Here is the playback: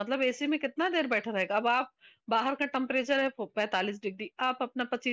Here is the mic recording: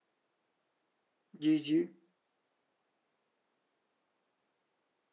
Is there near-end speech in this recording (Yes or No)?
Yes